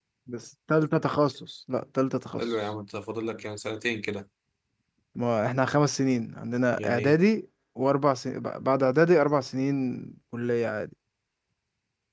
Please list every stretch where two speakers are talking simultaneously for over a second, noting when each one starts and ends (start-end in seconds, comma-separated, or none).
none